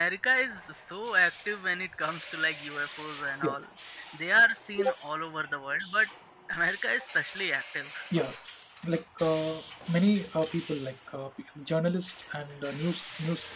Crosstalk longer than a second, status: none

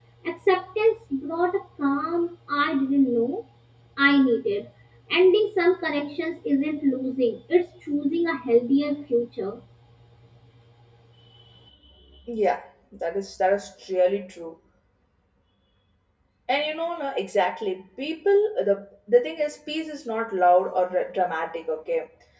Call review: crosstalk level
none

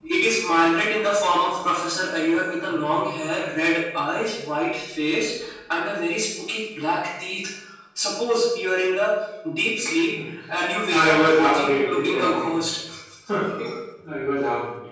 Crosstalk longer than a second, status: present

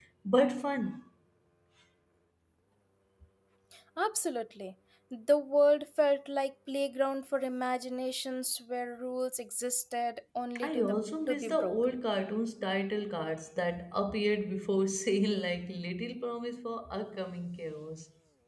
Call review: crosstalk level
present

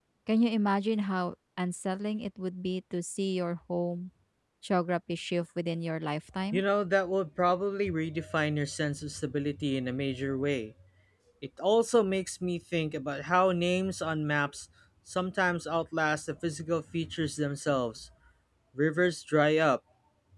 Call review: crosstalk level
none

